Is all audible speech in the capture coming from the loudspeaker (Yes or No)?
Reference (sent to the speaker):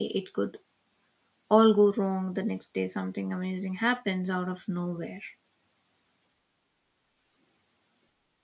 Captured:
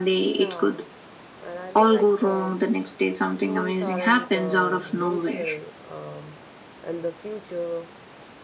No